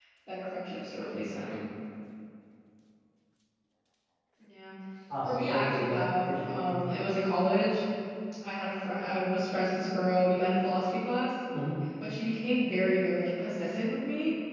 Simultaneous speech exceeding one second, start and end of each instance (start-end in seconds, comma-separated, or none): 5.2-6.7